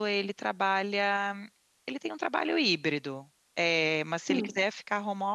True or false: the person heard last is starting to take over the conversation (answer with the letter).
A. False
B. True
A